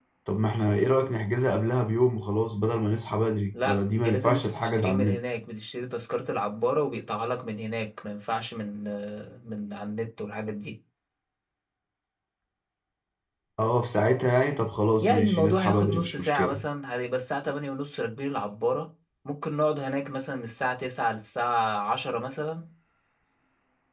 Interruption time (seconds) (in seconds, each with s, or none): 3.6 s